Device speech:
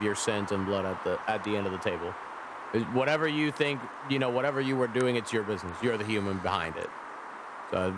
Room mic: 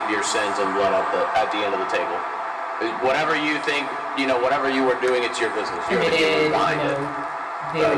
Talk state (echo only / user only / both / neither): both